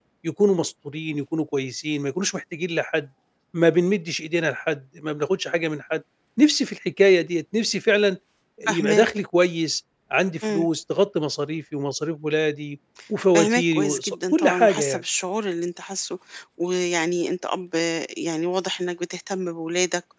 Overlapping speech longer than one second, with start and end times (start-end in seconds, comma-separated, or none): 13.3-15.0